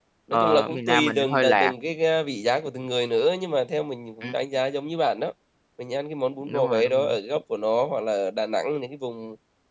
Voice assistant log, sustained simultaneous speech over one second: present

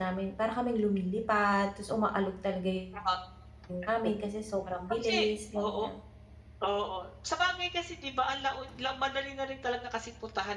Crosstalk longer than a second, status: none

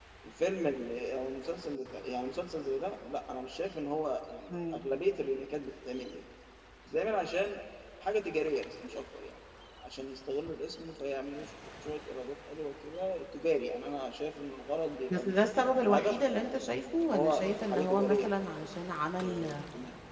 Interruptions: present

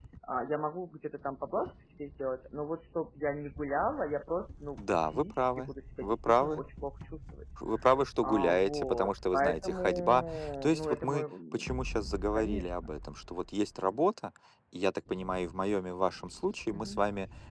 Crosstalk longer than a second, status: present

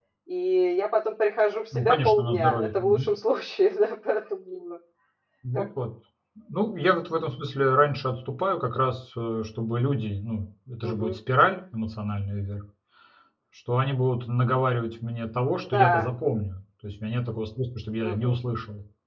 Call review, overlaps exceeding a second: present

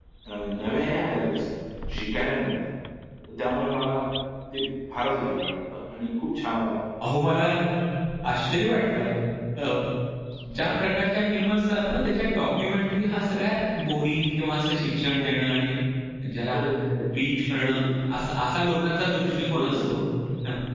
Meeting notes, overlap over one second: none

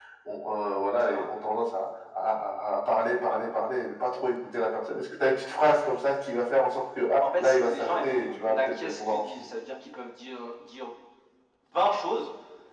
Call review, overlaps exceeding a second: present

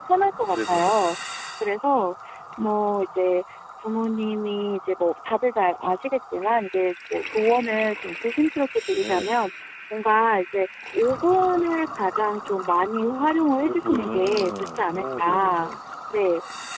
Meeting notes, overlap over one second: present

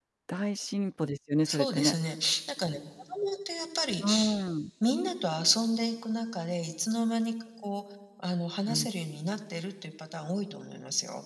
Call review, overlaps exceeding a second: none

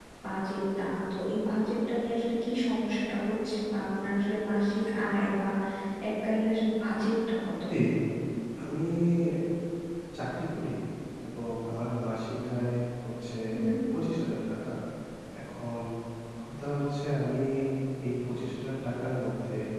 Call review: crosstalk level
none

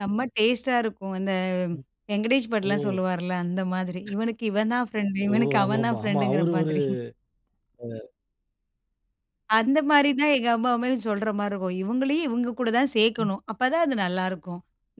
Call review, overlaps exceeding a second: present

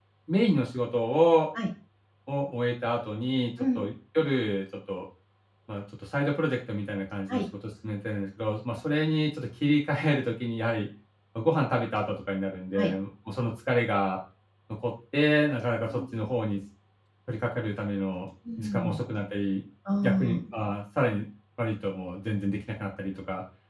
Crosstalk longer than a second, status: none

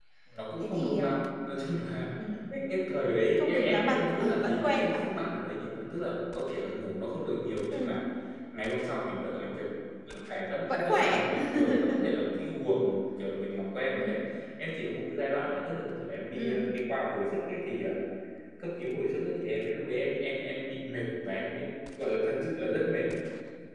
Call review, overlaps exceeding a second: present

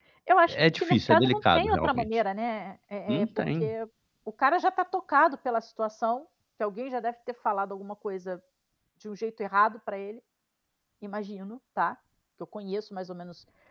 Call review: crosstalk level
present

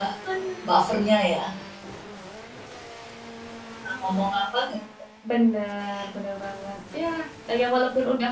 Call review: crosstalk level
none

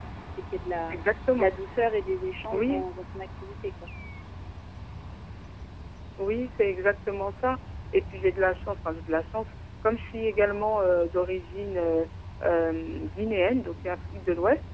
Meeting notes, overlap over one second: none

